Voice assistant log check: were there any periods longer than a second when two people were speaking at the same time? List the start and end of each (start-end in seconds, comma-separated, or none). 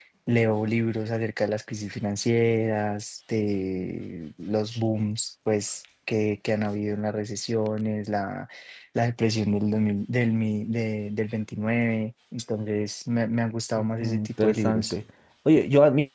13.8-15.0